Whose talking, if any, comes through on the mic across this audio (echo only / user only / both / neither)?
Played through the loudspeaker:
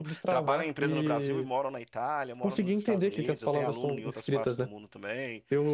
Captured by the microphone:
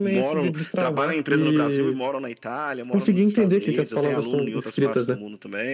echo only